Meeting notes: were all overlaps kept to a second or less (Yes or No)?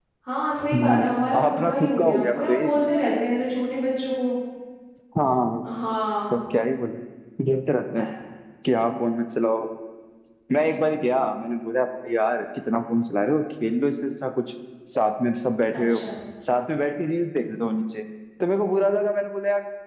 No